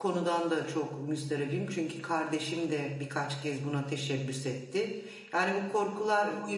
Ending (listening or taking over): listening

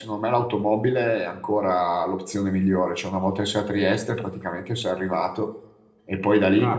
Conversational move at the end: taking over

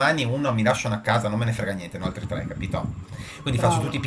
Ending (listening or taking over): listening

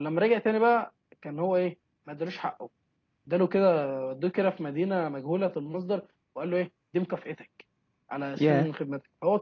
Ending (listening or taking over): listening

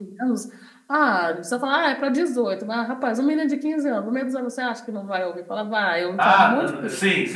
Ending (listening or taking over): taking over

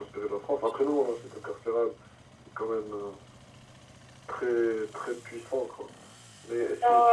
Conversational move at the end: taking over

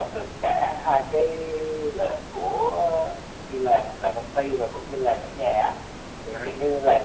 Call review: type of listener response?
listening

